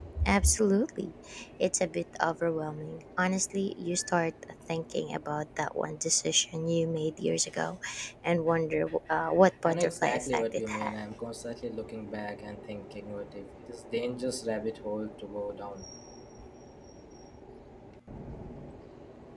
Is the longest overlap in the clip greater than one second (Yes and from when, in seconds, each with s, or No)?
Yes, from 9.7 s